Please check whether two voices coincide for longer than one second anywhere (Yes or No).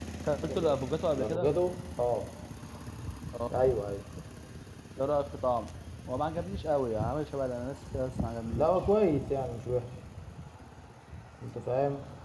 No